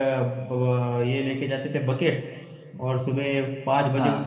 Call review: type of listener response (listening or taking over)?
listening